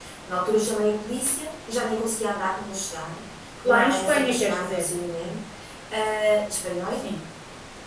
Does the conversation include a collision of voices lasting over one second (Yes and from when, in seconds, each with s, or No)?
Yes, from 3.6 s